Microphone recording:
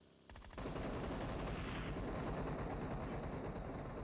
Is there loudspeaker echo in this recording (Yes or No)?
No